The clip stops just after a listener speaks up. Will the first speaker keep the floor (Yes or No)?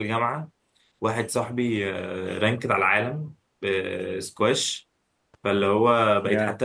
Yes